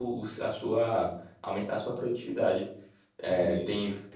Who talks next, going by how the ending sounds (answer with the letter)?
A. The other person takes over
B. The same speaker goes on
B